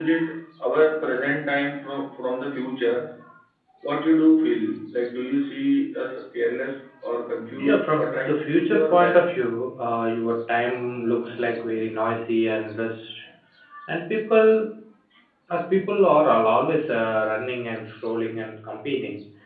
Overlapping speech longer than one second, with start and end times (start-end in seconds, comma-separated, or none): 7.6-9.3